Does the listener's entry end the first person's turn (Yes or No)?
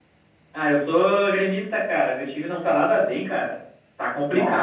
Yes